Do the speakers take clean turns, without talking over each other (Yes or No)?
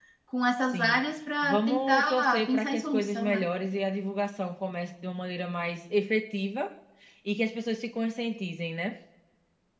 No